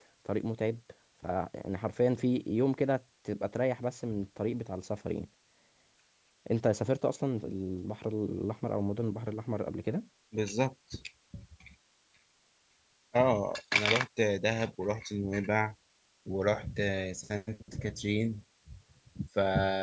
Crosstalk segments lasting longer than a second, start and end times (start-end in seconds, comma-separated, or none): none